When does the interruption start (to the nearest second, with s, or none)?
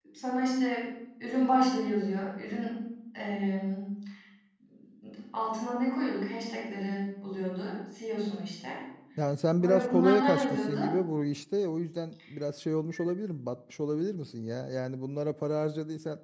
10 s